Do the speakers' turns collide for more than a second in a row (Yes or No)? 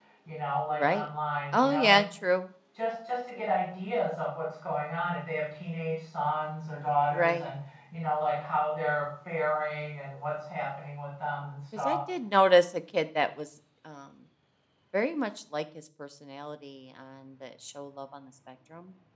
No